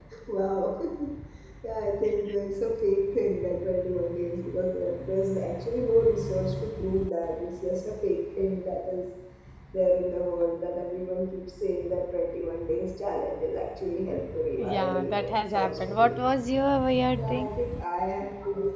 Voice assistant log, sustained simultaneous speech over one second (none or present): present